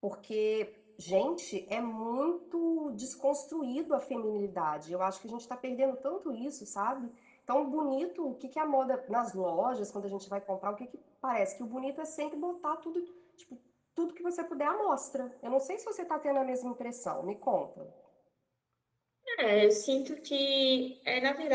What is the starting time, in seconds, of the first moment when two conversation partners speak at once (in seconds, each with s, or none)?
none